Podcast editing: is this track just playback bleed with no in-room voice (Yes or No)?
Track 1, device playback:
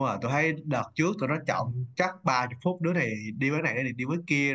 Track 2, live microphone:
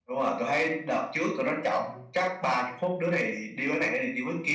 Yes